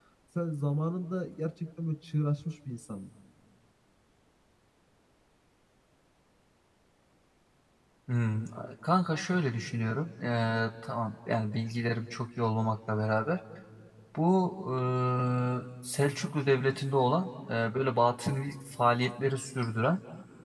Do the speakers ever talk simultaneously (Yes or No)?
No